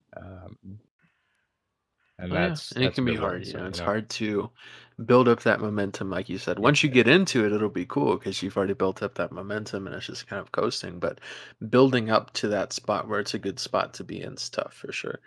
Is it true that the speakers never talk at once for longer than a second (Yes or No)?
No